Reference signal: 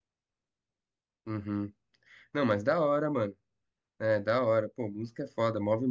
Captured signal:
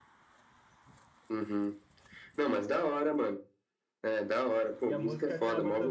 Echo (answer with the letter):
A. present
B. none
A